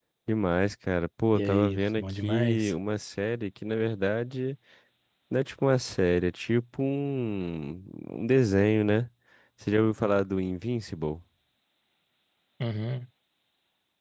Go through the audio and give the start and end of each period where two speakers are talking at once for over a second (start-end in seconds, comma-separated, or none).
1.4-2.7